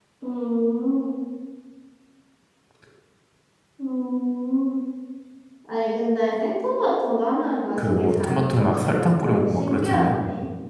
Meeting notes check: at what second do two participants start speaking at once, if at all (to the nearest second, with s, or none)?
8 s